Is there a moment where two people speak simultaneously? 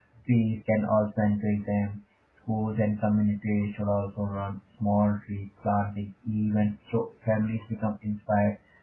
No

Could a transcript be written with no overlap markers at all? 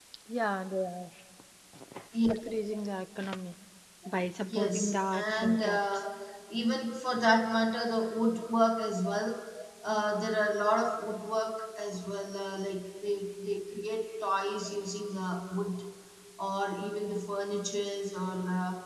No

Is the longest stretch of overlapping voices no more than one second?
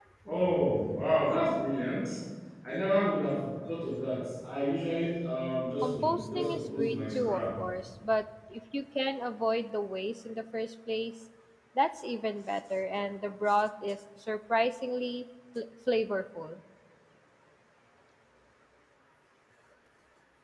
No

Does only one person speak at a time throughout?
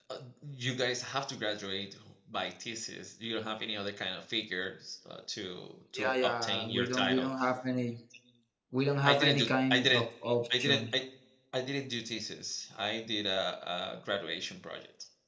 No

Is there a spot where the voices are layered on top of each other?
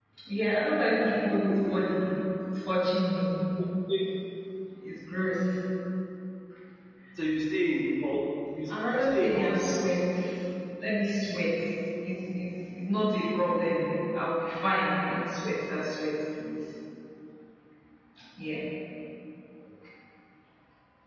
Yes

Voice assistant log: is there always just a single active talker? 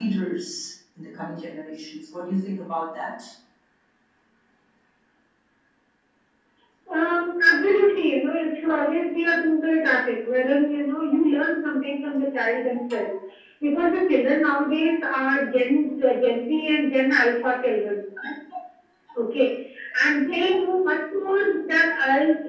Yes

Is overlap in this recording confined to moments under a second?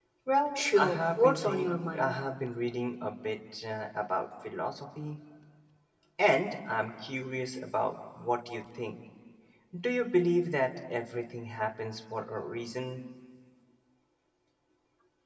No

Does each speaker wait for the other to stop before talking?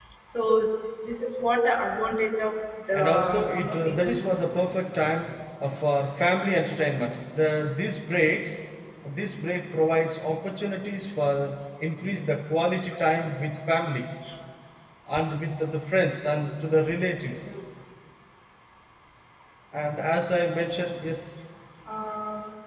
No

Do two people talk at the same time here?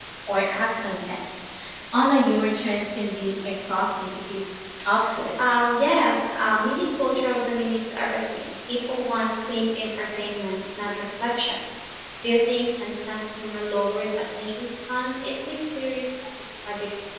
No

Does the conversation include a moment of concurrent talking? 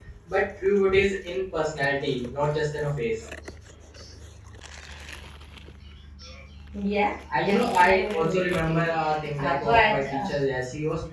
Yes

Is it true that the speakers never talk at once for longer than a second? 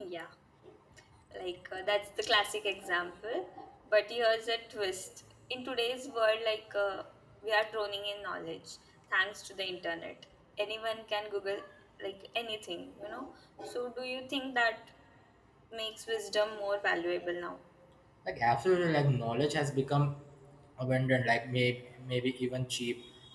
Yes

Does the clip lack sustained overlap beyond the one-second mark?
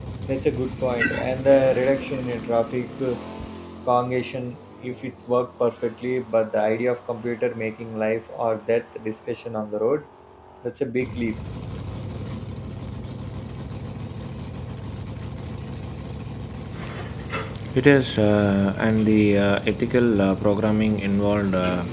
Yes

